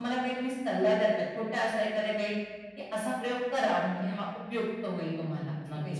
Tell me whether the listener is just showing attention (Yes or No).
No